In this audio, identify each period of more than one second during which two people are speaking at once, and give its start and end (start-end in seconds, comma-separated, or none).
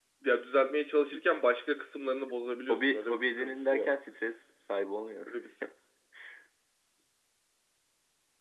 2.7-3.9